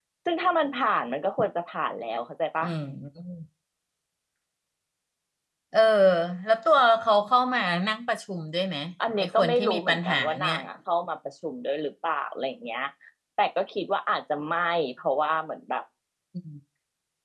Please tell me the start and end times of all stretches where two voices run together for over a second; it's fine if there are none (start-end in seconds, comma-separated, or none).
9.2-10.6